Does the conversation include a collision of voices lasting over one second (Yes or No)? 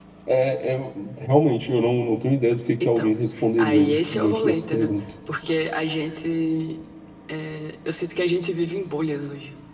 Yes